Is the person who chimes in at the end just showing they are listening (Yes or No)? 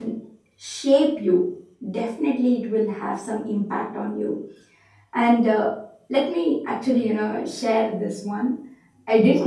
Yes